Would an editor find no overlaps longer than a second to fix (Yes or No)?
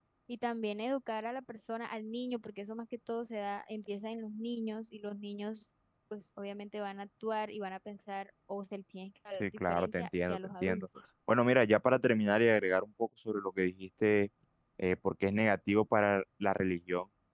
No